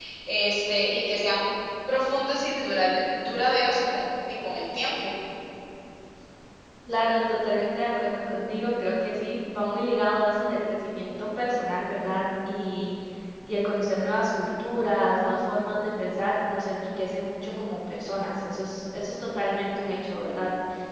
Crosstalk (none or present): none